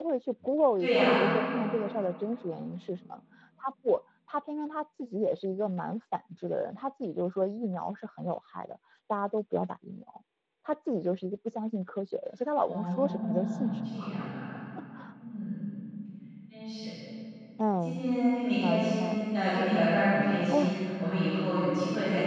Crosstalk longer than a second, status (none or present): present